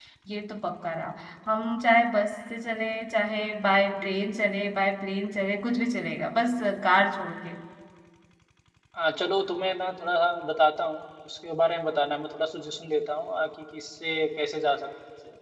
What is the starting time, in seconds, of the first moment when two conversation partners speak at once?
none

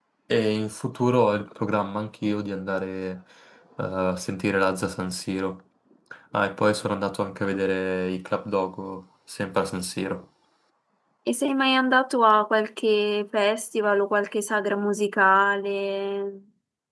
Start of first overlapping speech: none

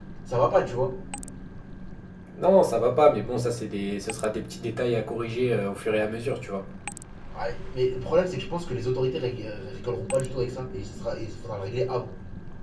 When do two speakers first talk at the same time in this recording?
none

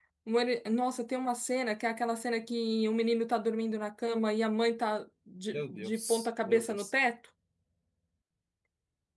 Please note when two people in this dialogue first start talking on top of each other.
5.5 s

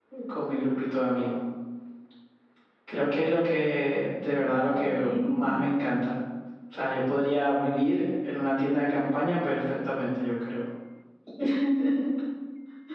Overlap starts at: 4.2 s

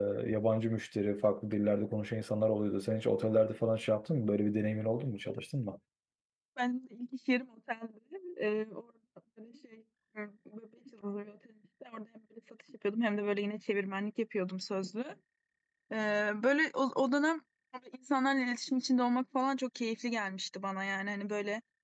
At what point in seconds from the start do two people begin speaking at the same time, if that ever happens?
none

